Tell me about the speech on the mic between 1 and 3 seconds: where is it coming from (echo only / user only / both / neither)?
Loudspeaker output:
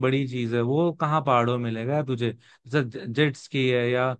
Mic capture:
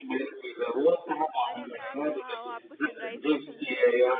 both